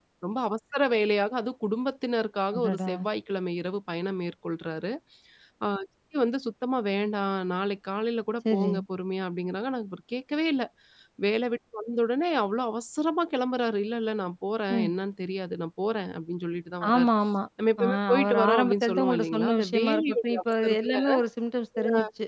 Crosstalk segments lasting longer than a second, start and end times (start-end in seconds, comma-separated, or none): 17.8-20.9